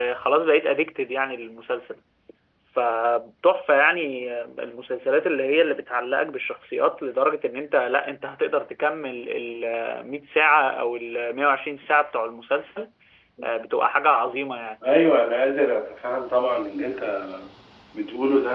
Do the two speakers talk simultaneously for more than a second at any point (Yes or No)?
No